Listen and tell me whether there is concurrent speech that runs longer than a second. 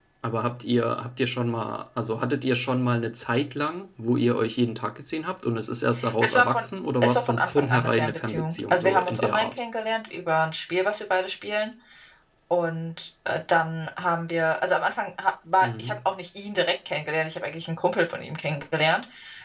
Yes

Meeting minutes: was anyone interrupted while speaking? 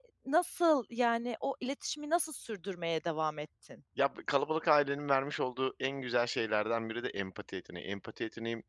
No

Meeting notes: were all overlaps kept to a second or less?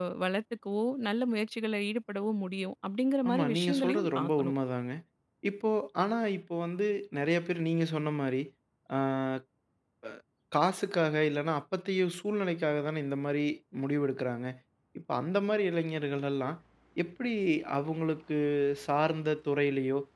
No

